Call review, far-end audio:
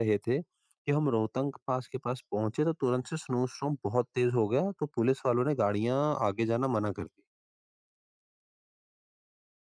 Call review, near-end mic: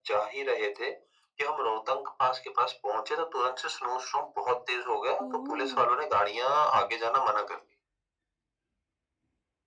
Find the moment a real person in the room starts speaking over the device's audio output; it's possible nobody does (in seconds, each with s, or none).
5.2 s